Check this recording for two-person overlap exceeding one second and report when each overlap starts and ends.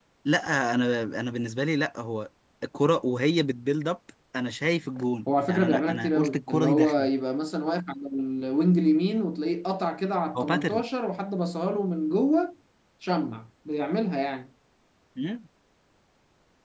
5.5-7.1

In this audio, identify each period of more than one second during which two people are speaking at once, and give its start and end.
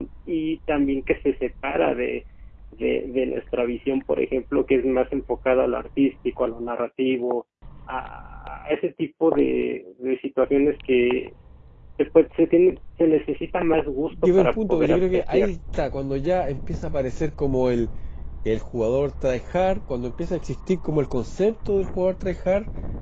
14.2-15.5

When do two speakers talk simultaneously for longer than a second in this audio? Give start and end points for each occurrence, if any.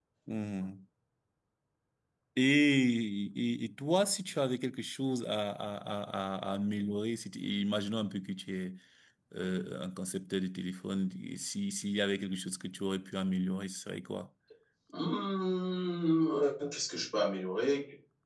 none

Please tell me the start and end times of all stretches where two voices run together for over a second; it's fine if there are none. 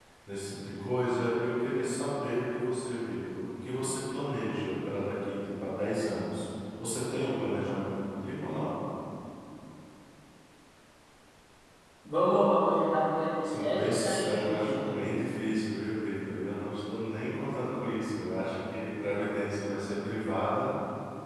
13.4-15.0

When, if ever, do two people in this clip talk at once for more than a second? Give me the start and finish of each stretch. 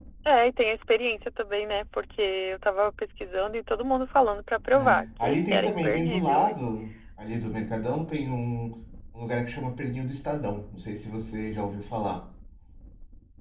4.7-6.6

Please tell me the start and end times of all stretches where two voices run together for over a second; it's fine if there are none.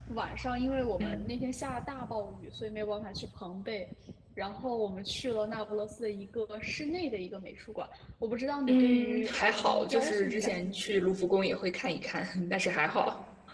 8.7-11.1

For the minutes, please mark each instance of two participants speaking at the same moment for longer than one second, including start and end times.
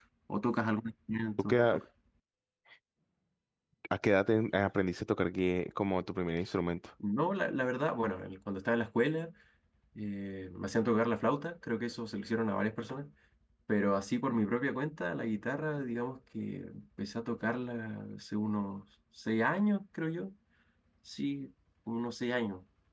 none

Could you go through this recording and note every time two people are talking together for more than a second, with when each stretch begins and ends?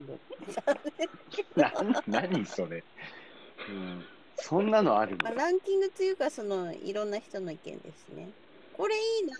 none

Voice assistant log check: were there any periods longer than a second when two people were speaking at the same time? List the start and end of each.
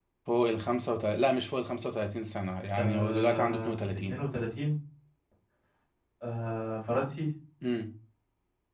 2.8-4.2

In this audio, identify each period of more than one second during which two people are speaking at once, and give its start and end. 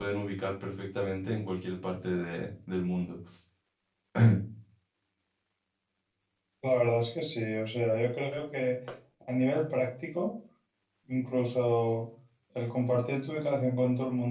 none

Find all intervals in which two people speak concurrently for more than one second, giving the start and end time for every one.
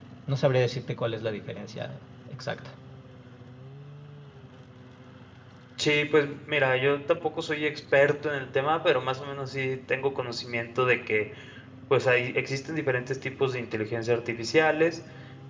none

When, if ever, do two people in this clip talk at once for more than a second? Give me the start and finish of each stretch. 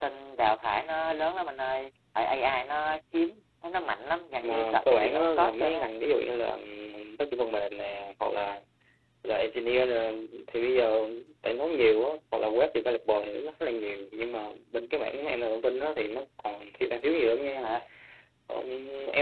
4.4-5.9

